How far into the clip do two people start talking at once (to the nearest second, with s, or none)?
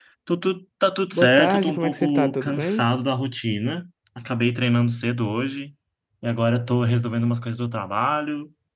1 s